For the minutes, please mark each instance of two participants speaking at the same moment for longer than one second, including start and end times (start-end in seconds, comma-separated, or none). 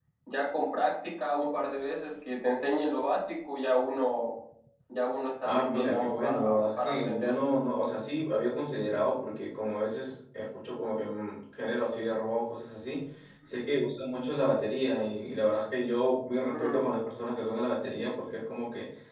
5.4-7.3